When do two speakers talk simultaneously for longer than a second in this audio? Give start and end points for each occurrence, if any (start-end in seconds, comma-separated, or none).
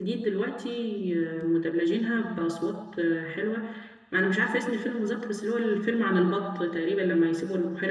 none